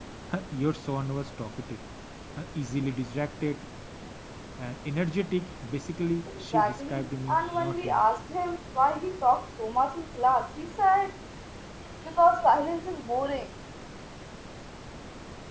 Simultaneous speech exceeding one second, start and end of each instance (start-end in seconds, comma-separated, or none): 6.3-8.0